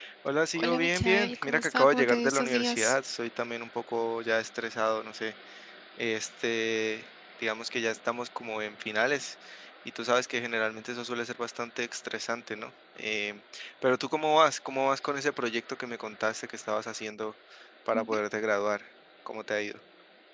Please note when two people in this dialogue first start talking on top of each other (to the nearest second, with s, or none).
1 s